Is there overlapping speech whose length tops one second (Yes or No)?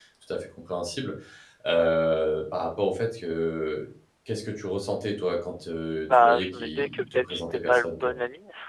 Yes